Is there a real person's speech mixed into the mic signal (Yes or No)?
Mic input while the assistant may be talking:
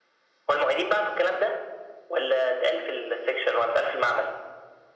No